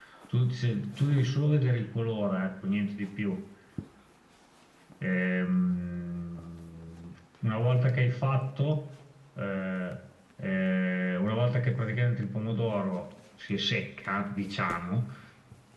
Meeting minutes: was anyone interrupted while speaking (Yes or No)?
No